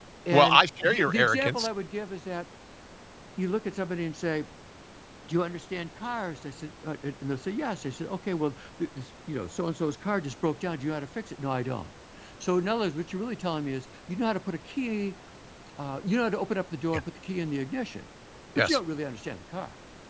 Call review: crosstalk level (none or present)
present